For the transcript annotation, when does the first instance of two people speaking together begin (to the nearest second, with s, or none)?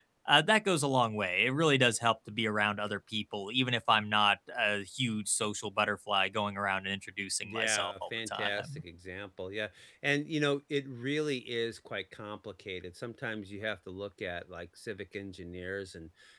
7 s